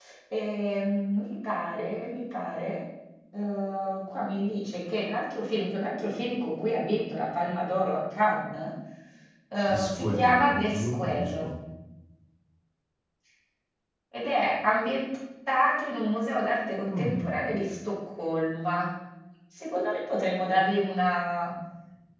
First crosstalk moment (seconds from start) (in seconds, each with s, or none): 9.7 s